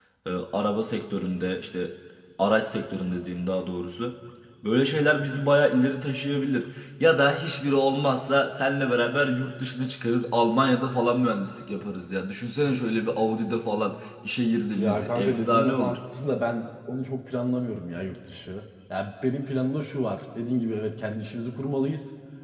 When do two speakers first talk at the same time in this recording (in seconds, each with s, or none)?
14.8 s